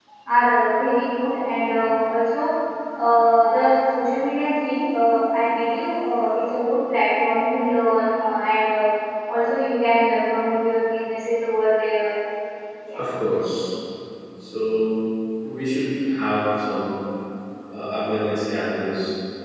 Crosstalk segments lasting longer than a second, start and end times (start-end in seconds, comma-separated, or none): none